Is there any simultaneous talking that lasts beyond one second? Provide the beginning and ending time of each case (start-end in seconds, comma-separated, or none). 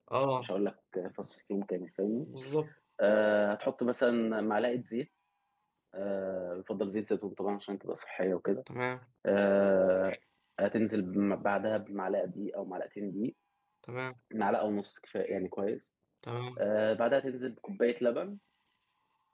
none